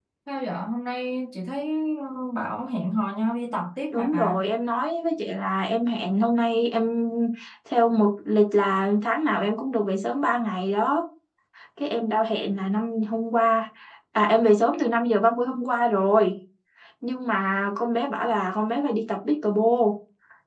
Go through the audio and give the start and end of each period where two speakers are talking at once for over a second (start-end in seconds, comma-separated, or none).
none